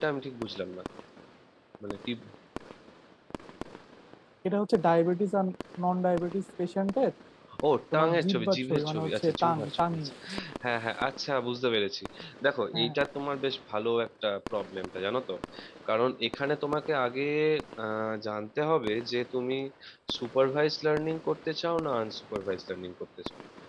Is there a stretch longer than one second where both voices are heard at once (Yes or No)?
Yes